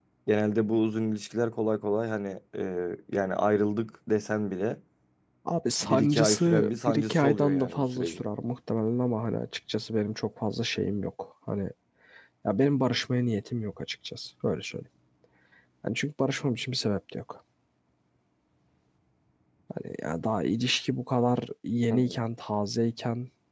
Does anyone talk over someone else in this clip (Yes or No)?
Yes